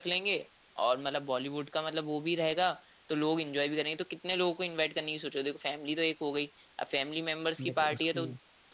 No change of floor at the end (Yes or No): Yes